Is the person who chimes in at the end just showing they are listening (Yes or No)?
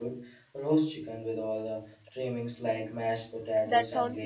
No